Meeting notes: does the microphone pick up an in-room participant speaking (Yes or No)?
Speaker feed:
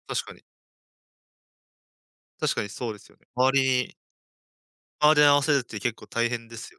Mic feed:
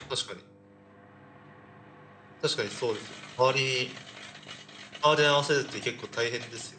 No